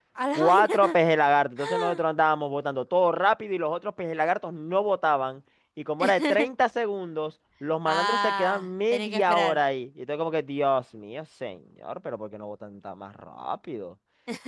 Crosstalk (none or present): present